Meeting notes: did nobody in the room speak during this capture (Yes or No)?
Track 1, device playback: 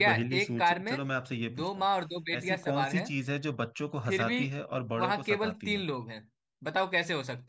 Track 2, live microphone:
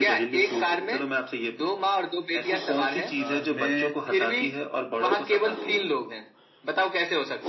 No